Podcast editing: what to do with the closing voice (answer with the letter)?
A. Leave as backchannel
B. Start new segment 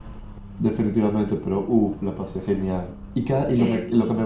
A